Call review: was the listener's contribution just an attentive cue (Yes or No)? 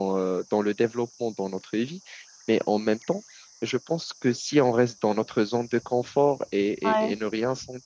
Yes